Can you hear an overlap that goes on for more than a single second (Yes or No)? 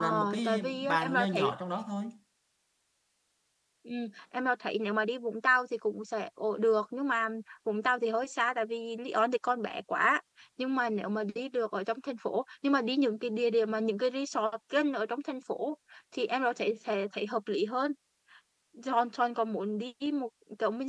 Yes